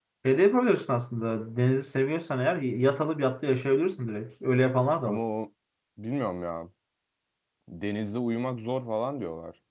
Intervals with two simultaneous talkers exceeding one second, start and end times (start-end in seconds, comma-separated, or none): none